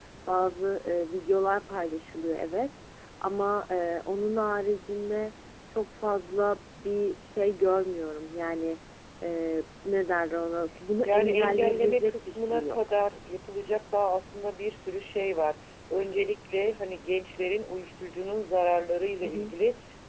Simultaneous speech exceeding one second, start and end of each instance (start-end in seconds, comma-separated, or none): 11.0-12.8